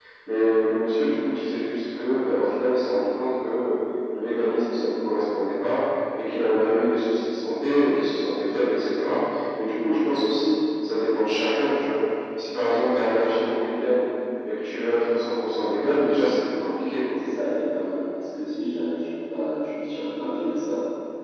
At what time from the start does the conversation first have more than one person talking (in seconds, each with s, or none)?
none